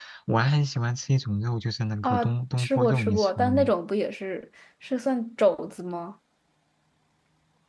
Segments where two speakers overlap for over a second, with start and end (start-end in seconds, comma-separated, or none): 2.0-3.7